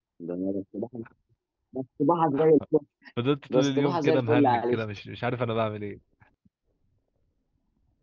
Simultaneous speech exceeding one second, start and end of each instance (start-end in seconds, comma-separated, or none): 3.5-4.8